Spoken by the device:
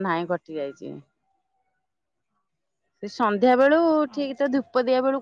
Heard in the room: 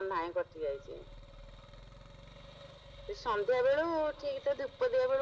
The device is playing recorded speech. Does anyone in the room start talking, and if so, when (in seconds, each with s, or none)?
none